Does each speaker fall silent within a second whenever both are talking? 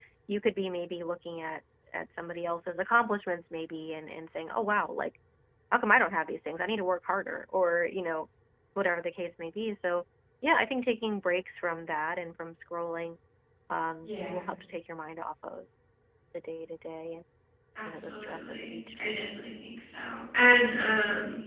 No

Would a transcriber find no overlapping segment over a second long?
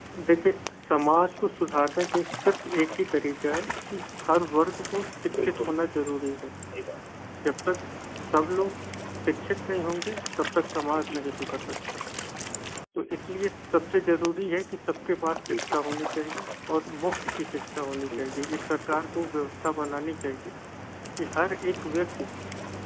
Yes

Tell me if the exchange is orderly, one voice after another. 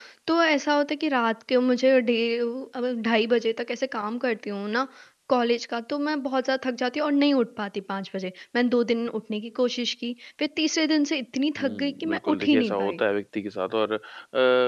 No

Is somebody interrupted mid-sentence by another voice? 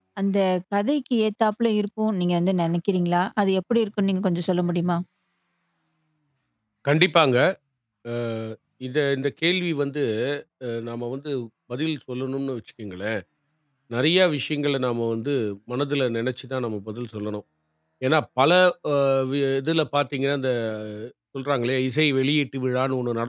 No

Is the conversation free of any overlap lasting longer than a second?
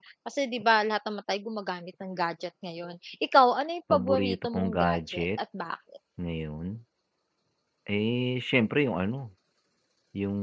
No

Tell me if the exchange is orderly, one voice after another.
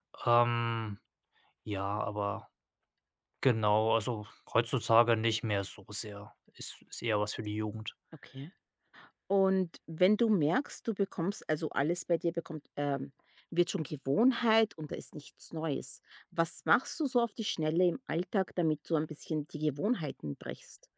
Yes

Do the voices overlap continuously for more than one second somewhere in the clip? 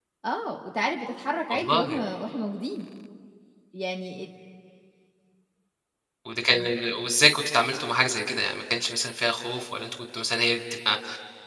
No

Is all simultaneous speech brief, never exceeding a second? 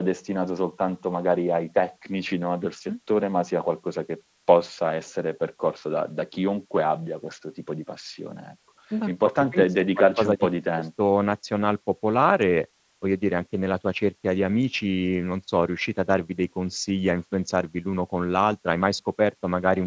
No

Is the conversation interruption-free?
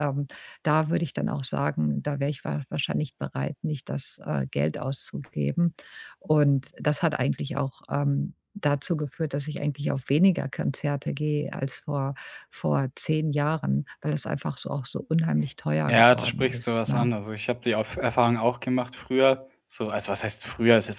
No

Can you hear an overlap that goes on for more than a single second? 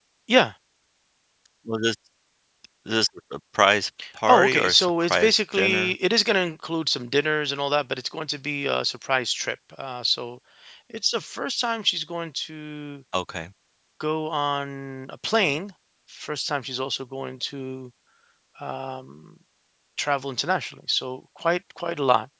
Yes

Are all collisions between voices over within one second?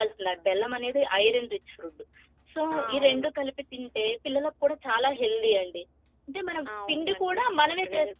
No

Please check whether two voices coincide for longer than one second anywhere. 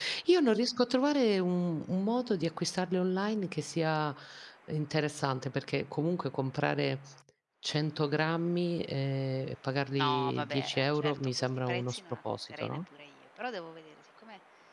Yes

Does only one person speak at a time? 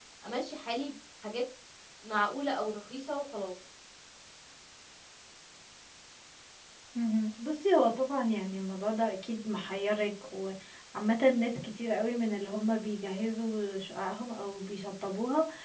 Yes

